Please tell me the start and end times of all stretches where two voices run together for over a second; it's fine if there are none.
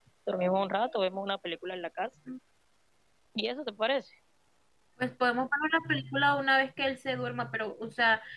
none

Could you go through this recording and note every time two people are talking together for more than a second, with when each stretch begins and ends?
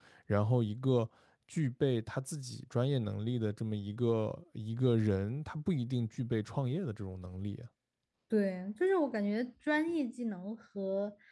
none

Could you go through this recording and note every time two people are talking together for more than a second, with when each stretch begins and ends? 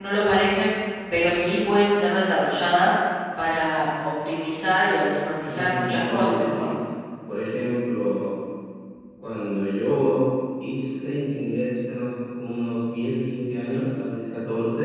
5.4-6.7

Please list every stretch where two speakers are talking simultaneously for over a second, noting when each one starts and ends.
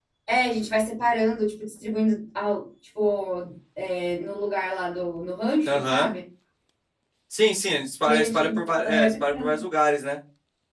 8.1-9.6

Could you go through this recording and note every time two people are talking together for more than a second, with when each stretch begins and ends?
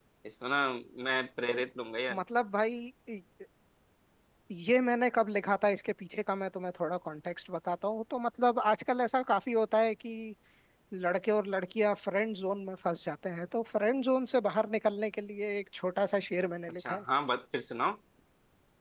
none

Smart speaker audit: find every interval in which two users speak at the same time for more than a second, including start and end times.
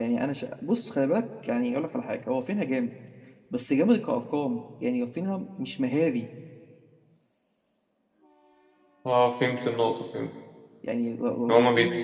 none

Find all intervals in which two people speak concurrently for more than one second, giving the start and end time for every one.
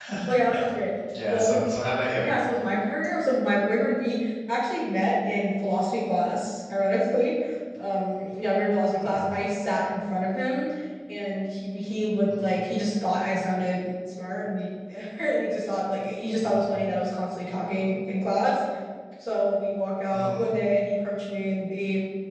none

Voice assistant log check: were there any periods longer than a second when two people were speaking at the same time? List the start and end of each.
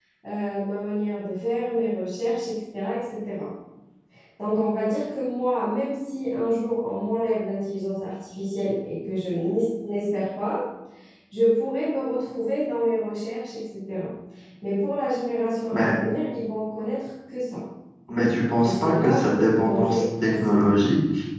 18.6-20.7

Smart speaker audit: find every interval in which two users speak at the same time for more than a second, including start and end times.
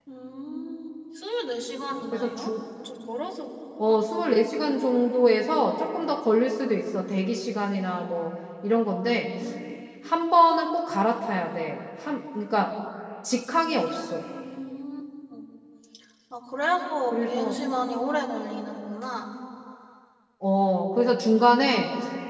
none

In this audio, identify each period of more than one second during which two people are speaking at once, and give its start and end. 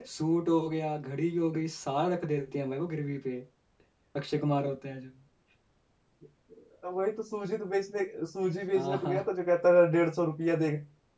none

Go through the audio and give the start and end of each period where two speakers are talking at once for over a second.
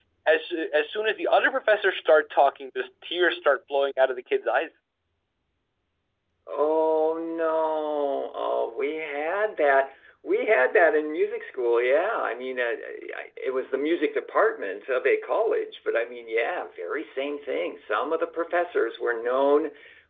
none

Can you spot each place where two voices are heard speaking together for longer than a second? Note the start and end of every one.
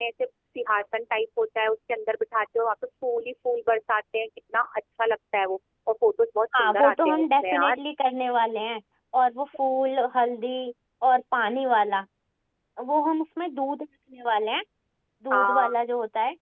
6.5-7.8

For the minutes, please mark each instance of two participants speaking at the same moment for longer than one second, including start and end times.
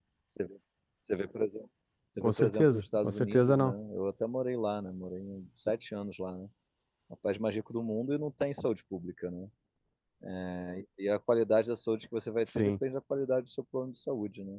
2.2-3.7

